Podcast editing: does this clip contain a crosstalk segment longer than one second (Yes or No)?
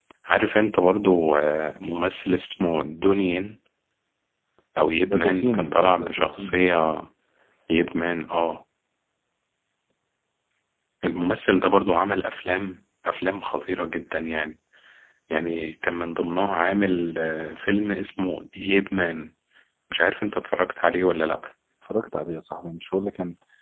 Yes